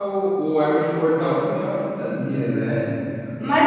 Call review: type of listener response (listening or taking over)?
taking over